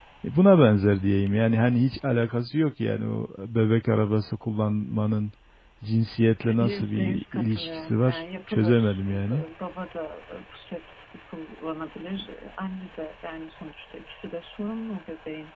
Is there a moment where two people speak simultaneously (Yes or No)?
Yes